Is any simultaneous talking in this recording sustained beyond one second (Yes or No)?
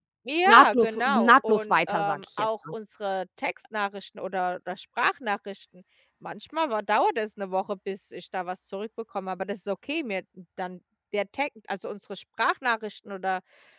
Yes